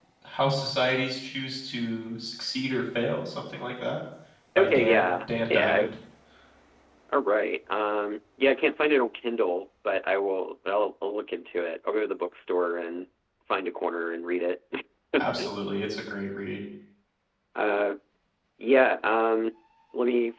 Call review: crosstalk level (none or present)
present